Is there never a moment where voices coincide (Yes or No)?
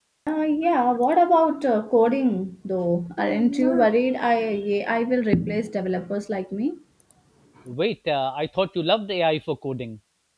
Yes